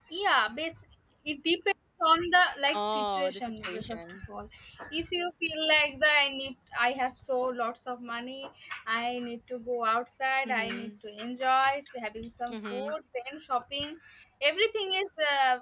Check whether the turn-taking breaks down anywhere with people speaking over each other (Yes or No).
Yes